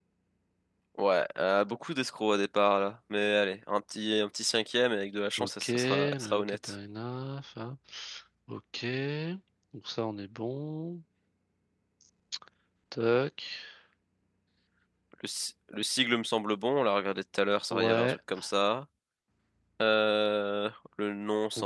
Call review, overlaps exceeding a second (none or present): present